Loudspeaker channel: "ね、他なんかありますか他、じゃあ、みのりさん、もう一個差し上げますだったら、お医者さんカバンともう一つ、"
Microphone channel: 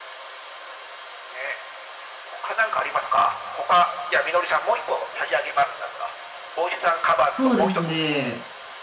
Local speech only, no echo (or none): そうですね。